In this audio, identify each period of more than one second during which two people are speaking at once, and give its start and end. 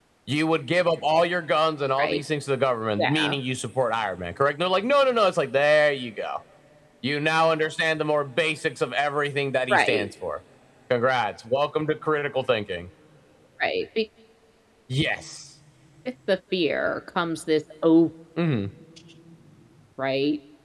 none

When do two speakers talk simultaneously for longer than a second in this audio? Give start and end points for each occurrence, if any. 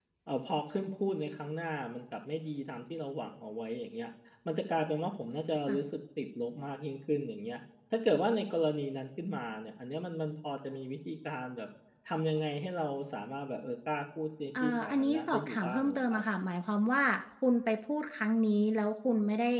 14.6-16.2

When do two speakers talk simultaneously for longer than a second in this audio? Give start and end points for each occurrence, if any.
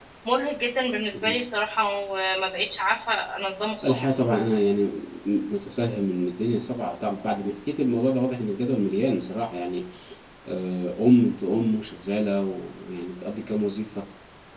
none

